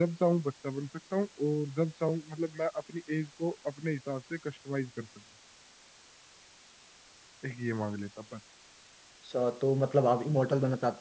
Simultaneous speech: No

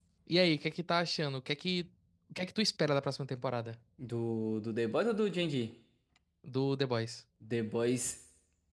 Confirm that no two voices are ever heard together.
Yes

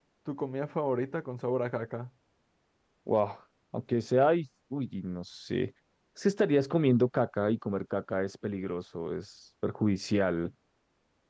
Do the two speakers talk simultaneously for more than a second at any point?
No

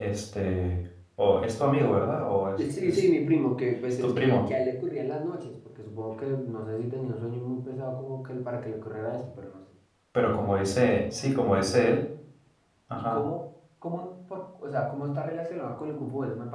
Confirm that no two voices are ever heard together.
No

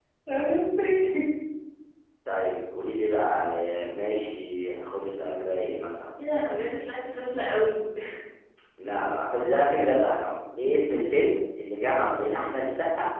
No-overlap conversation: Yes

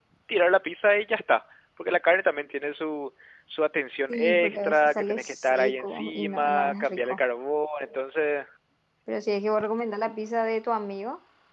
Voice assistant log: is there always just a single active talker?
No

